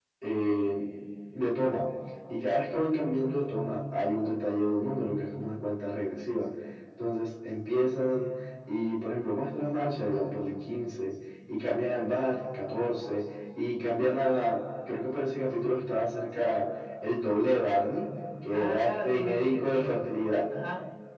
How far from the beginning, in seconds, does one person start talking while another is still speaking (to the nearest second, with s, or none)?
19 s